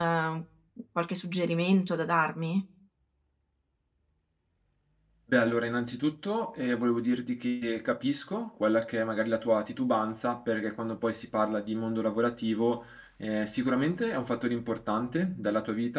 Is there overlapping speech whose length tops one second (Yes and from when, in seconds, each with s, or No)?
No